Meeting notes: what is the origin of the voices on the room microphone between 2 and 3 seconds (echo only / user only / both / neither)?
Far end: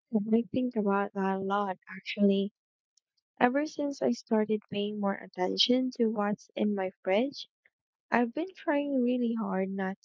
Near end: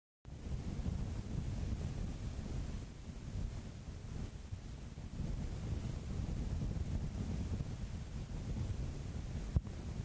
neither